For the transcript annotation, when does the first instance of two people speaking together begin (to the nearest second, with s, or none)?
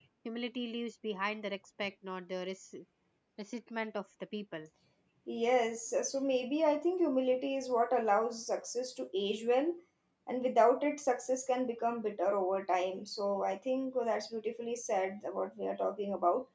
none